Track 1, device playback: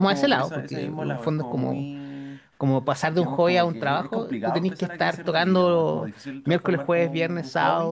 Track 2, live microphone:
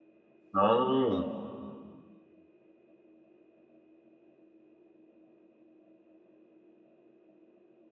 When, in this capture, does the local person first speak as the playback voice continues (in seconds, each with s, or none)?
0.5 s